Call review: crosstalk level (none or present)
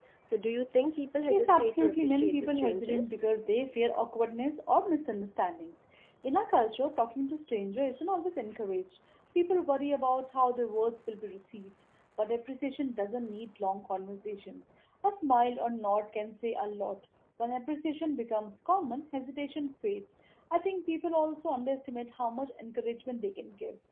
present